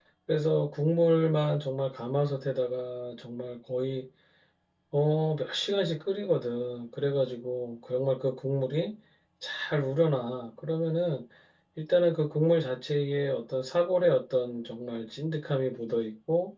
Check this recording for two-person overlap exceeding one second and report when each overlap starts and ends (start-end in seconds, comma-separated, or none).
none